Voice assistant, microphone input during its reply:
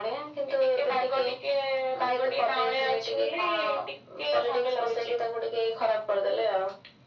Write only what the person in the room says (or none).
none